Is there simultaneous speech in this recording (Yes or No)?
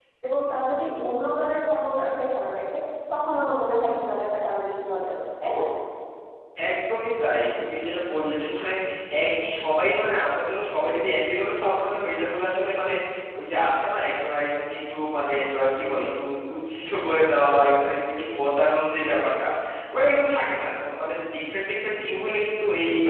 No